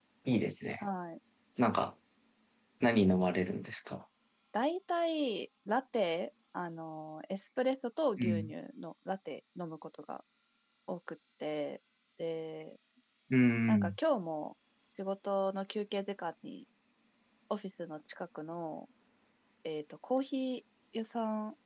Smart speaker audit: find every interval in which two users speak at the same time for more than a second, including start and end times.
none

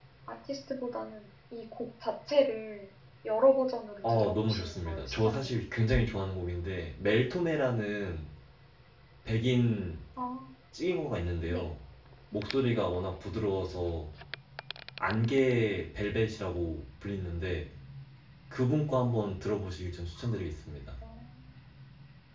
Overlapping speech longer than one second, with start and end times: 4.0-5.5

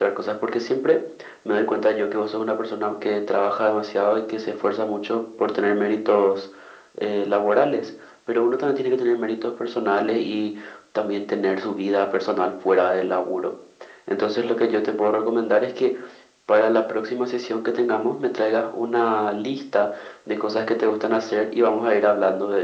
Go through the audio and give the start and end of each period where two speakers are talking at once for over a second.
none

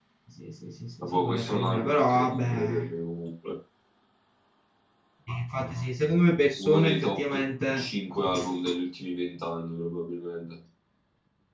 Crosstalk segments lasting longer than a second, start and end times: 1.0-2.7, 6.6-7.9

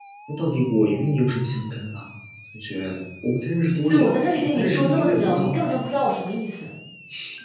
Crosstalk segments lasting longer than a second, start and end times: 3.8-5.6

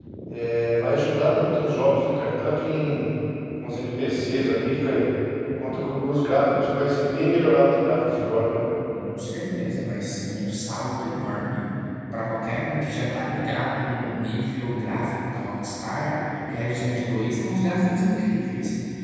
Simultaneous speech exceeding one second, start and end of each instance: none

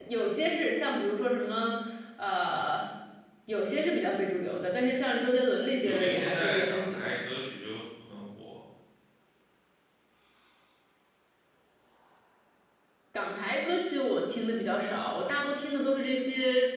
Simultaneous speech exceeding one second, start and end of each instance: 5.8-7.2

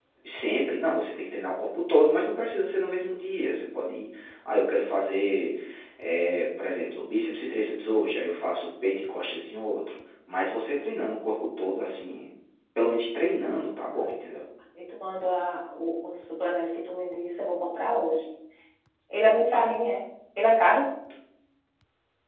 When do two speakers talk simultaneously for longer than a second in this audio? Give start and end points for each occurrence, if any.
none

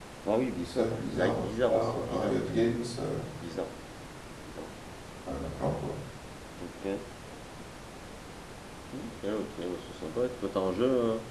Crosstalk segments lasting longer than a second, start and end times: 0.6-2.4

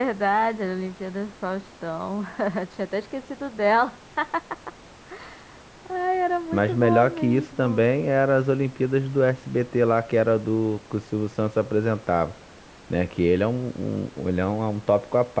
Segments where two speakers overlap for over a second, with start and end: 6.5-7.8

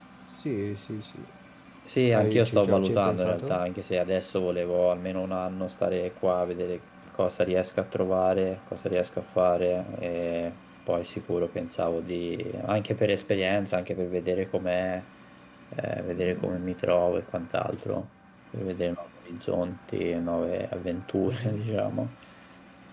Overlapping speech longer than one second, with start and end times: 2.1-3.6

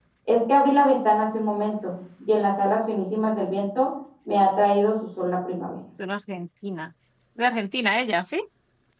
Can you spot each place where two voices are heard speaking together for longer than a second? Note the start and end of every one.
none

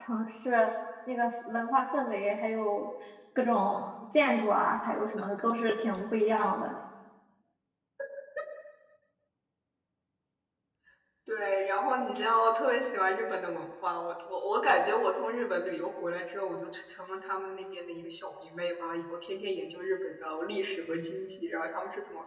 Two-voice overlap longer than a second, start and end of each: none

